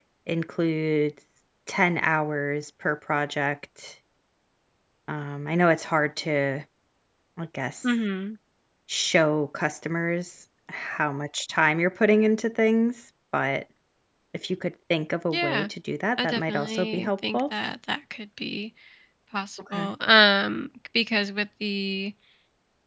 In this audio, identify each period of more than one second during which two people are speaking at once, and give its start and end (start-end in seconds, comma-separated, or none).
16.2-17.4